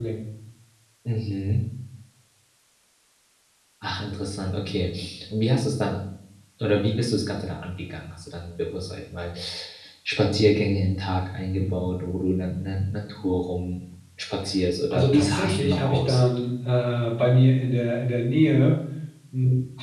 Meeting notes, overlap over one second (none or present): present